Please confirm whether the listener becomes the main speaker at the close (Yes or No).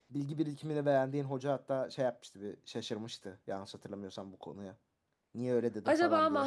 Yes